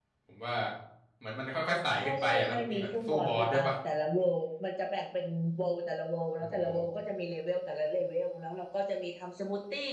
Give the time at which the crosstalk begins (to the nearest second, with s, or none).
2 s